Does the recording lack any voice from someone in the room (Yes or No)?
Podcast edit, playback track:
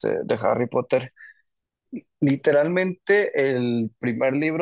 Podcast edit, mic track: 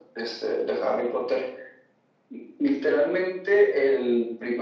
Yes